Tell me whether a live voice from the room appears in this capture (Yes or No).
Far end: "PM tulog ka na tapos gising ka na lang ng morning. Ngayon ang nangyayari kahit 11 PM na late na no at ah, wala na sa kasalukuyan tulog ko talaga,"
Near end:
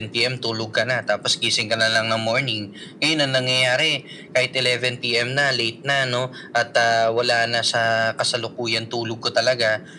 No